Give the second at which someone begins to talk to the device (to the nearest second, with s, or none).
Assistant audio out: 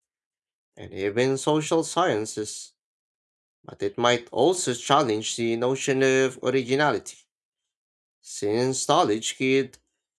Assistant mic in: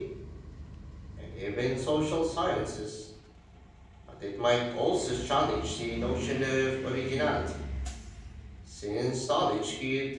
none